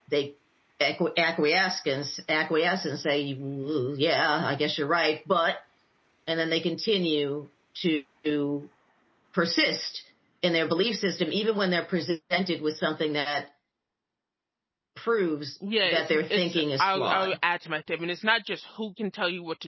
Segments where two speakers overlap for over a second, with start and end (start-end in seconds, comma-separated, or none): 15.8-17.4